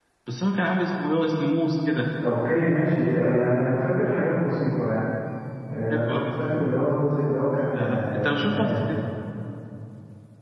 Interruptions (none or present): present